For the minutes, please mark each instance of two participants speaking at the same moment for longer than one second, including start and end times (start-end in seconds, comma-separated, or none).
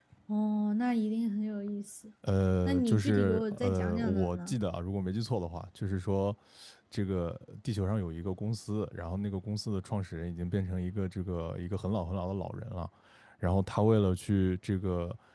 2.7-4.5